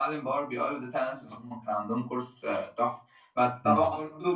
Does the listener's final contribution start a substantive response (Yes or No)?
No